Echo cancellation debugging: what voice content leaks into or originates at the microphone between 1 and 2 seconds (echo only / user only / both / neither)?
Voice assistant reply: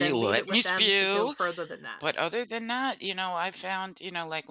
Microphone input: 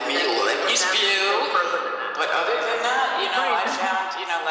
echo only